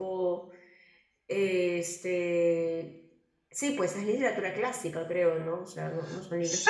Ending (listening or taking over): taking over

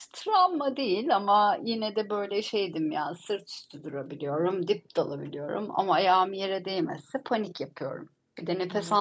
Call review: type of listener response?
taking over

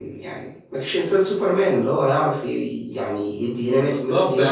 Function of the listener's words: taking over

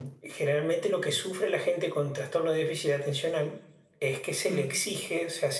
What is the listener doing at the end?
listening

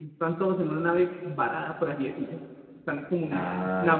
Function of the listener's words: listening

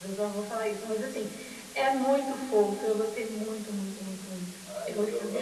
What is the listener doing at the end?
taking over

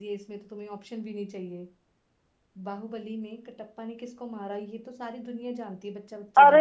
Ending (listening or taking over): taking over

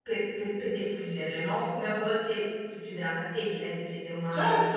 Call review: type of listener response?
taking over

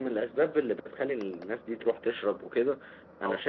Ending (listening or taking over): listening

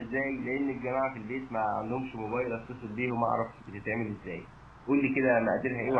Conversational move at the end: taking over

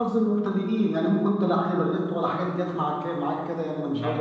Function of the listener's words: taking over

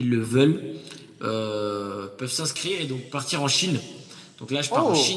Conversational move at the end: listening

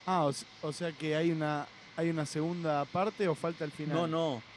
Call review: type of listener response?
taking over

